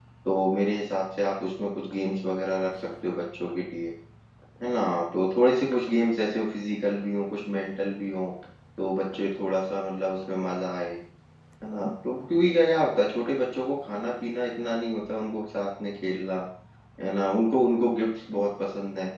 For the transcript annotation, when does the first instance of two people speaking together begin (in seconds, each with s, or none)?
none